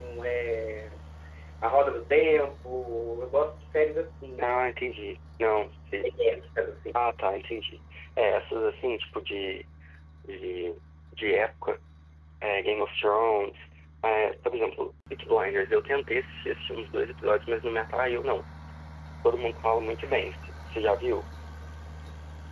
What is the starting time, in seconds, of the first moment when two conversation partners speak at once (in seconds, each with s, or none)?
none